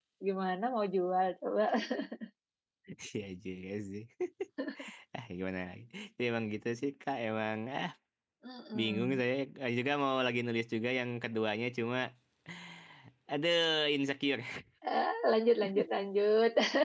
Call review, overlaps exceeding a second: none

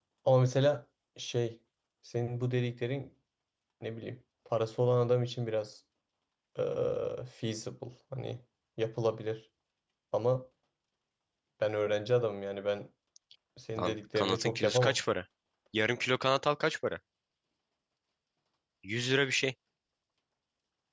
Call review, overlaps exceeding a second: present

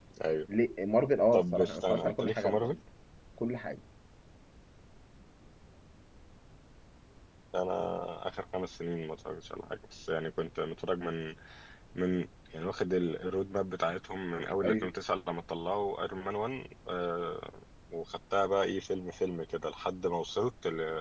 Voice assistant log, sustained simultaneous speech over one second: present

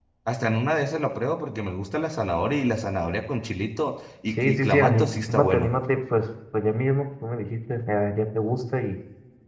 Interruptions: present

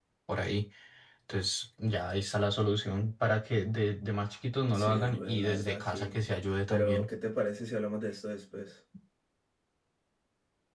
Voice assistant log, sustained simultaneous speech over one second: present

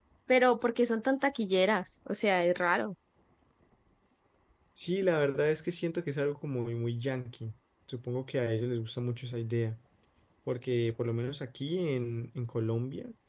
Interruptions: none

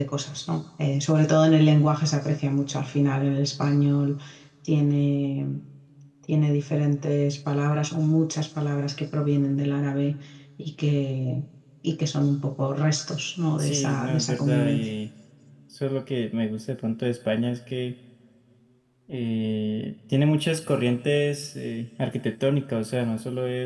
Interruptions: present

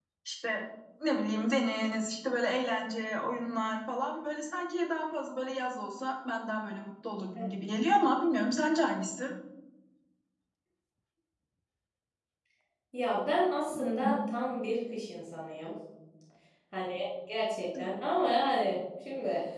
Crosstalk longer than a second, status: none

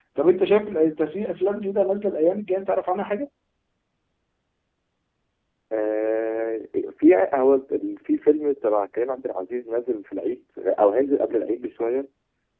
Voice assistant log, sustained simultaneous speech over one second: none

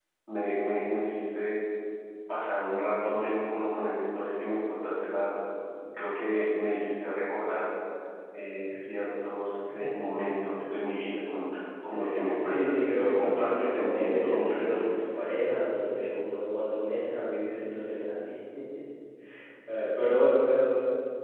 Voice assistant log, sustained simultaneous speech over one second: present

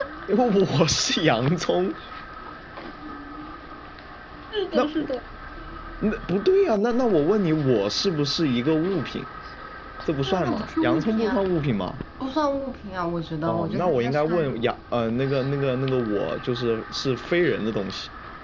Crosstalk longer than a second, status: present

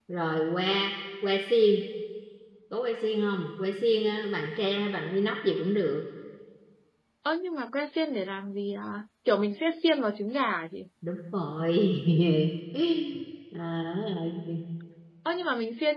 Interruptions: none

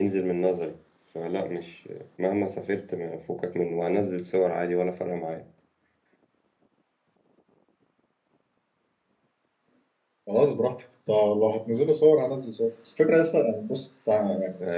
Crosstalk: none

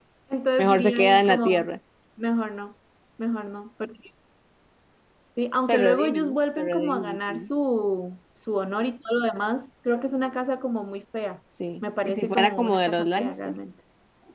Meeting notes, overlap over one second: present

